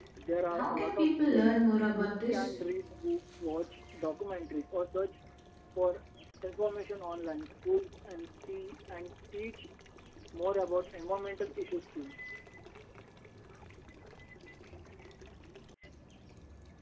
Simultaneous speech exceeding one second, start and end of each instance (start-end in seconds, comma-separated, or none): 0.5-2.5